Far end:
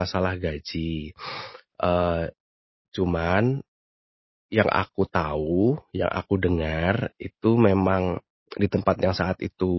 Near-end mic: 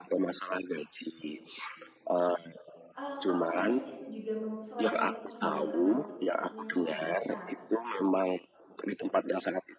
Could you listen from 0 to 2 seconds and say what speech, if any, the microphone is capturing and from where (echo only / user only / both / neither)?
echo only